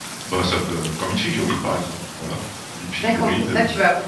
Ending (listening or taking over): taking over